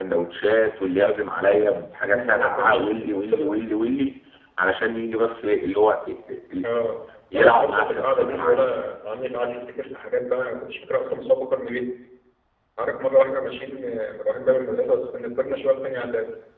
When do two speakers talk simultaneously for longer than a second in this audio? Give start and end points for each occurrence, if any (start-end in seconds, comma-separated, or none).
2.0-3.5, 7.3-8.6